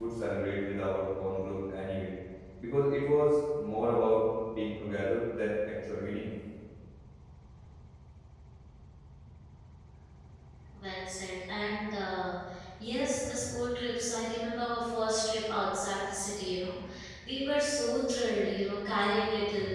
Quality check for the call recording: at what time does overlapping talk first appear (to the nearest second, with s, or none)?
none